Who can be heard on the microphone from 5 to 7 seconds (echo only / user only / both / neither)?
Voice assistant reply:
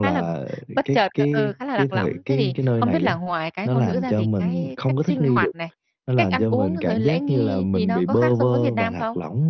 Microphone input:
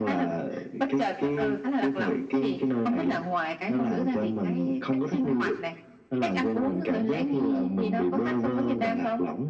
echo only